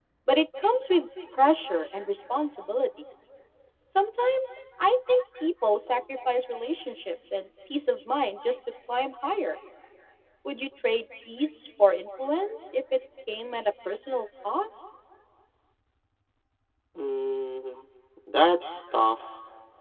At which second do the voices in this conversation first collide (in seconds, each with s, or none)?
none